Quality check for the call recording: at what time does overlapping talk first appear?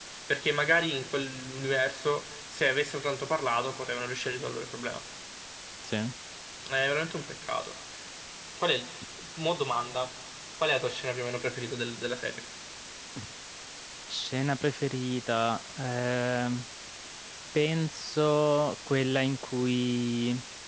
none

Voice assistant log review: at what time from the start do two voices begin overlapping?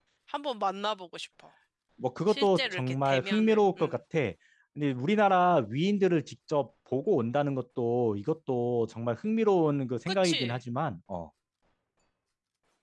2 s

